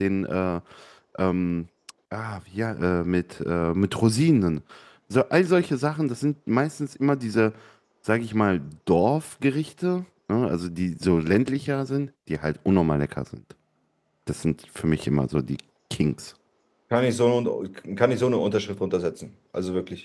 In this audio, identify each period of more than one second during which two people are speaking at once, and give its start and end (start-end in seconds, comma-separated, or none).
none